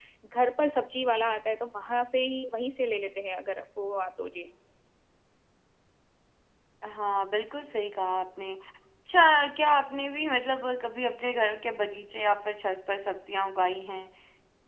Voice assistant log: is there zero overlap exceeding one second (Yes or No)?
Yes